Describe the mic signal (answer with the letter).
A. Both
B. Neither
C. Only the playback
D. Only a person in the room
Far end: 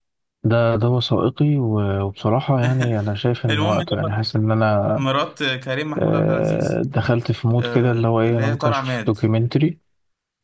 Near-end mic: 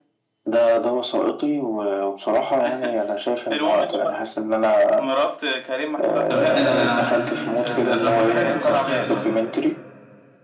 A